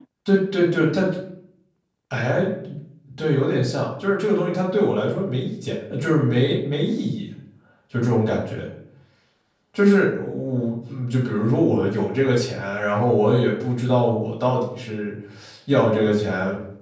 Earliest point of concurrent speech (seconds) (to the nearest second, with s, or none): none